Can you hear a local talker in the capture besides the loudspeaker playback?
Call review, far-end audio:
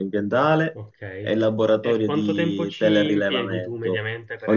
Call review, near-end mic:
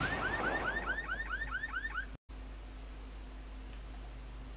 No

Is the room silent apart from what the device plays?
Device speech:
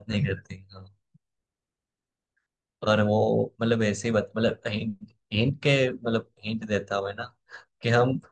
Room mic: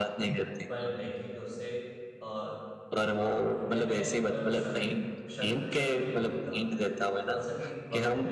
No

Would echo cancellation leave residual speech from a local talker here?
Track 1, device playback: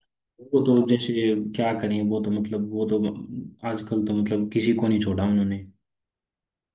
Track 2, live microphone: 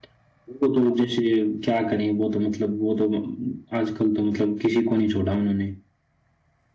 No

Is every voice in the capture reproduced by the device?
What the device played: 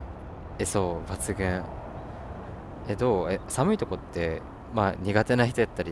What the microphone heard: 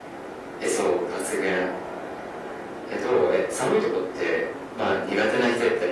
Yes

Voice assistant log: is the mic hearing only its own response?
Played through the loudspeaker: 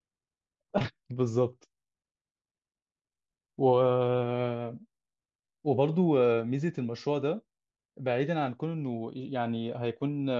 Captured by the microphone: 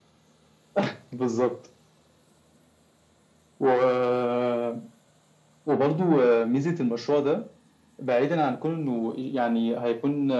Yes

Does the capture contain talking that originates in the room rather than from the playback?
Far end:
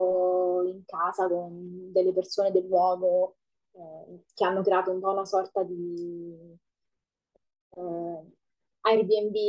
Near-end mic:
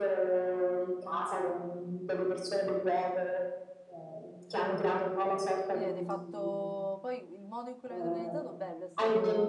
Yes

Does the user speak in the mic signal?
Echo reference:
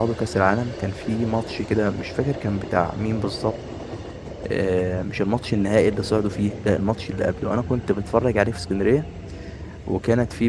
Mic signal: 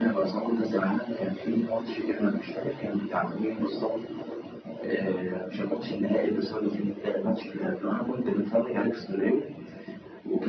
No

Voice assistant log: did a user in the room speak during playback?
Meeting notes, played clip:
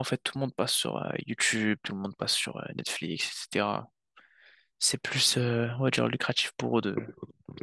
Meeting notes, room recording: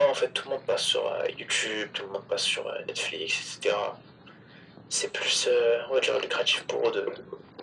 No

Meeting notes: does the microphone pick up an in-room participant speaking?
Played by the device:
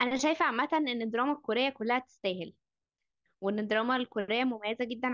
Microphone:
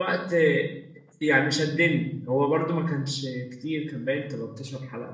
Yes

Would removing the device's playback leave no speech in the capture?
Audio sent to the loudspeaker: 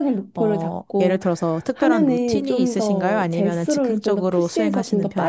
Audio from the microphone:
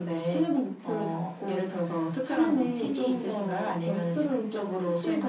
Yes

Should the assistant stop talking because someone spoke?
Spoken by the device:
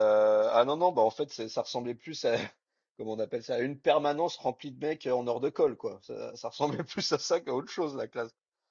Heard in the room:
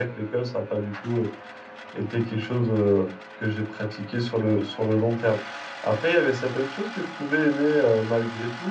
Yes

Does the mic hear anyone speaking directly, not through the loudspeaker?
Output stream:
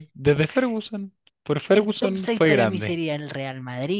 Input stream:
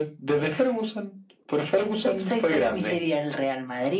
No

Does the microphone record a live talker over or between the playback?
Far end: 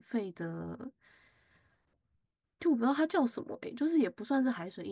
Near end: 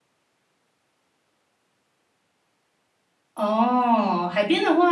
Yes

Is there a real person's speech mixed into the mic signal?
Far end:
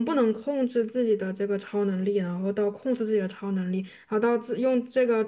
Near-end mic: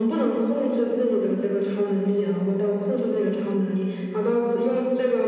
No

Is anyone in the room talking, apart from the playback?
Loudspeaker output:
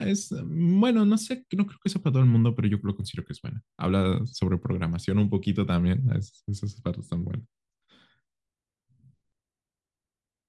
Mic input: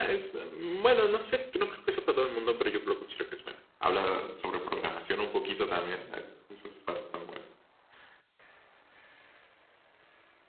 No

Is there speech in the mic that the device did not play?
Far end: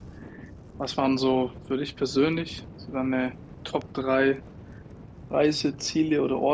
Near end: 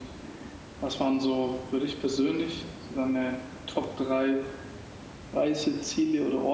No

